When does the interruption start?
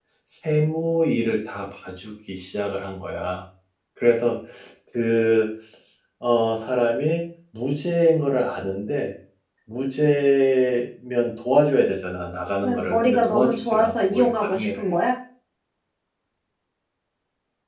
12.6 s

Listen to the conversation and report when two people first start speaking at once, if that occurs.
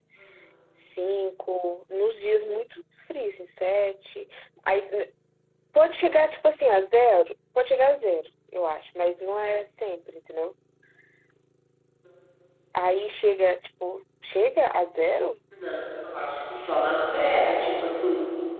none

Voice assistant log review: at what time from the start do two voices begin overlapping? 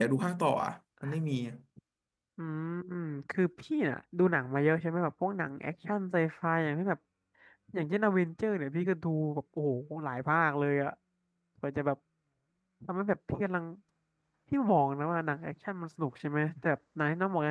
none

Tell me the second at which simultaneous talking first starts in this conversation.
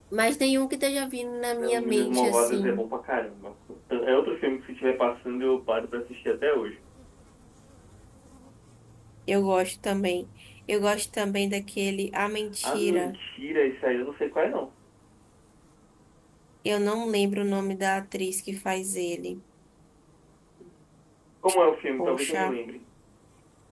1.6 s

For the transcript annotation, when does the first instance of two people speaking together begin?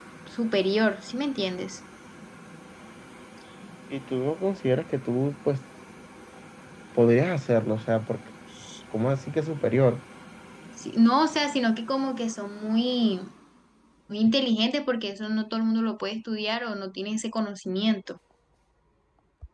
none

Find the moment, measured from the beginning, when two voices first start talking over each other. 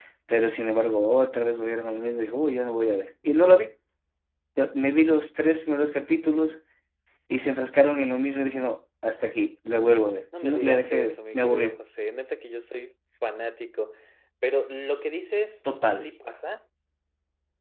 10.4 s

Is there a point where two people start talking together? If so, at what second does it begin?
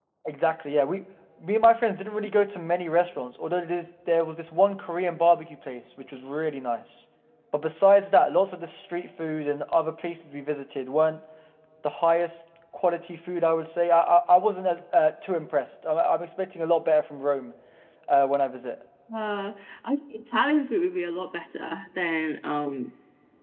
none

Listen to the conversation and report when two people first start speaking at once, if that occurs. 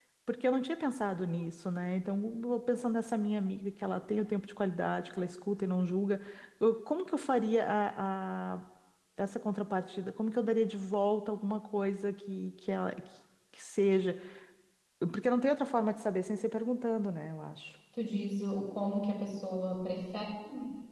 none

